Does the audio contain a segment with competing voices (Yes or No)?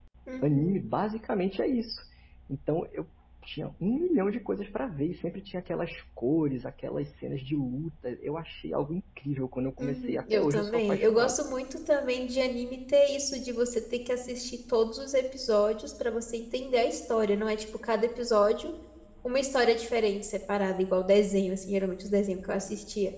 Yes